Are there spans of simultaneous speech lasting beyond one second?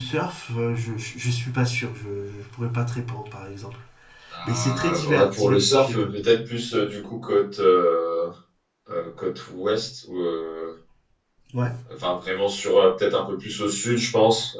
Yes, from 4.4 s

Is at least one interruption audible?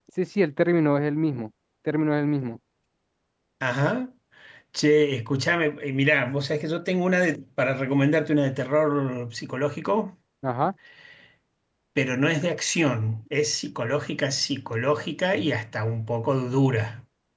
No

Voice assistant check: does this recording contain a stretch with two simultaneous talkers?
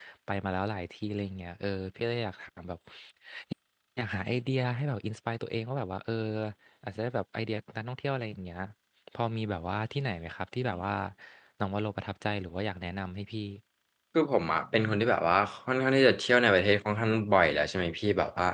No

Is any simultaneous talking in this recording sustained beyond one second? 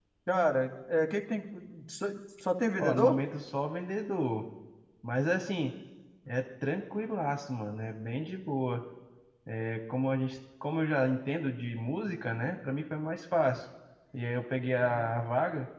No

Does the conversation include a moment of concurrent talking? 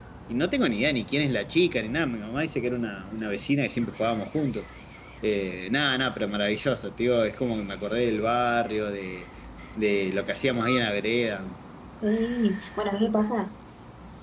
No

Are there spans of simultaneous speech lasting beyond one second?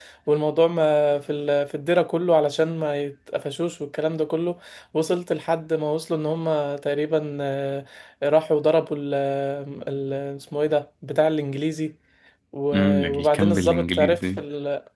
Yes, from 12.7 s

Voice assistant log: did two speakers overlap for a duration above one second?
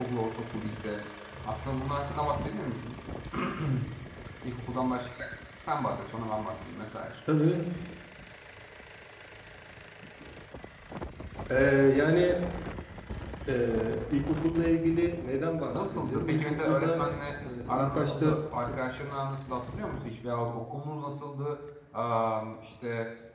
Yes, from 15.7 s

